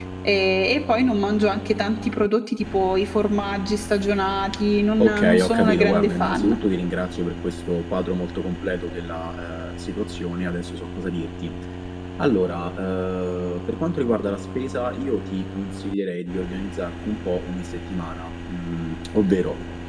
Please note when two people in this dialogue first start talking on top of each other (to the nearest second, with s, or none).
5 s